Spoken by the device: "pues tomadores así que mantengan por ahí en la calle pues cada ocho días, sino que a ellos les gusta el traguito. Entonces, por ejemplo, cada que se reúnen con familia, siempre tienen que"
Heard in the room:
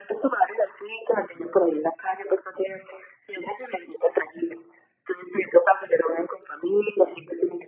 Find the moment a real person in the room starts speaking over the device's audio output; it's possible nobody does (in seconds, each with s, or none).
none